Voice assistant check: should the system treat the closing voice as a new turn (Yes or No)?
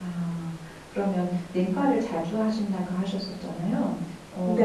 No